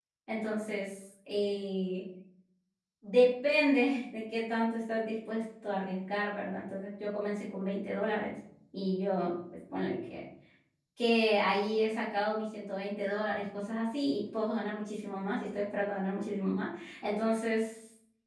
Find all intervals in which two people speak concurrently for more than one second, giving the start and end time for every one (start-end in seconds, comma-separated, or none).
none